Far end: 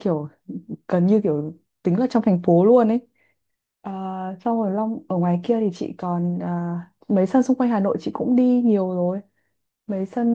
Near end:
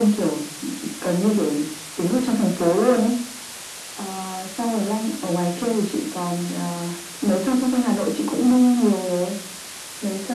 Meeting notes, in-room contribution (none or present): none